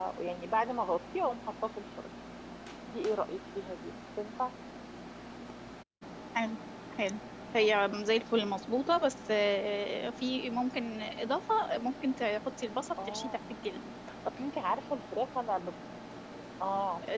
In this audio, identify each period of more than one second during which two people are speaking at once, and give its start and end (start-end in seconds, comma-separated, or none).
none